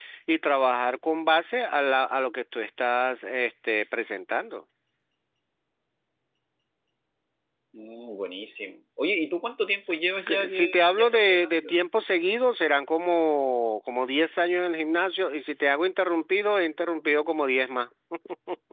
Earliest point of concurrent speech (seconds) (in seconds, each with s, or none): 10.1 s